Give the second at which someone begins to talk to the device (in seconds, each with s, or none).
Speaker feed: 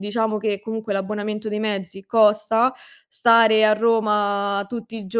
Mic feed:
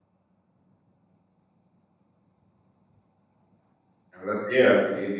4.1 s